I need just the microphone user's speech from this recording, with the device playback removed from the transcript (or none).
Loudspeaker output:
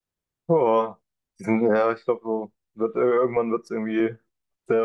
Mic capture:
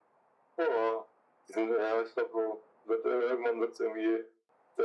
none